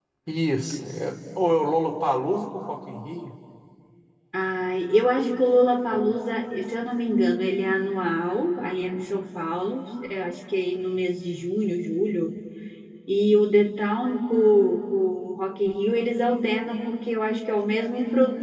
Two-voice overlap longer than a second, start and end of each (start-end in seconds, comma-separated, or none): none